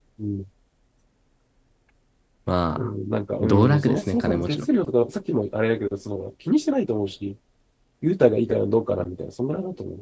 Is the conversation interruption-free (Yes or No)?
No